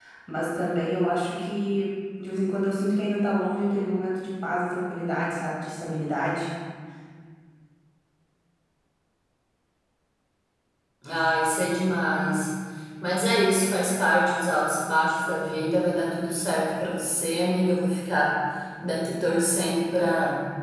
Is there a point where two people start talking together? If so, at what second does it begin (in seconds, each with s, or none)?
none